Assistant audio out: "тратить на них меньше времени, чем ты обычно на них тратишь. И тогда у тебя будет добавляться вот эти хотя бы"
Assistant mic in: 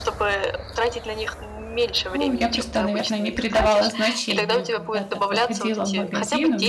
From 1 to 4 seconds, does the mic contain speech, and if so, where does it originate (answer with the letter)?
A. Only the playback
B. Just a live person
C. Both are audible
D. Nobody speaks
C